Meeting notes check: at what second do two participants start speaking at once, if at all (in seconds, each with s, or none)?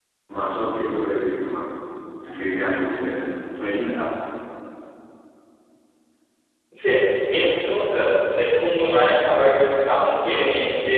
none